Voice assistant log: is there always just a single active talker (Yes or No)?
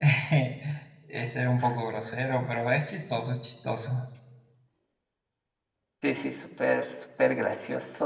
Yes